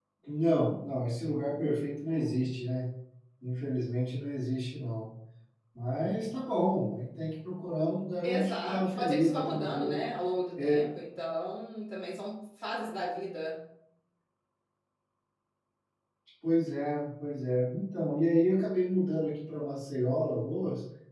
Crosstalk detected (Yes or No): Yes